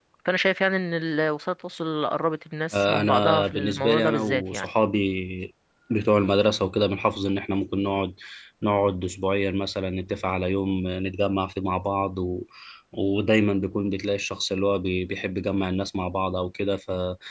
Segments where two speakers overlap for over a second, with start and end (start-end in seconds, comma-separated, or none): 2.7-4.7